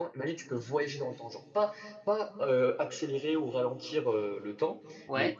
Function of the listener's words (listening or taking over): listening